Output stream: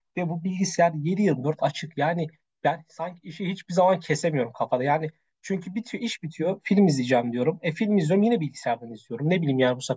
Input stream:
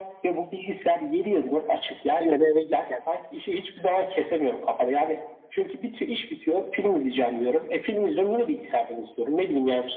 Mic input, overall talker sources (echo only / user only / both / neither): both